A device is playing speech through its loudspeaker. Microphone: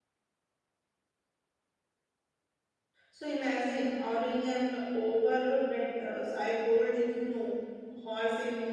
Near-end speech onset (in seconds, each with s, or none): 3.1 s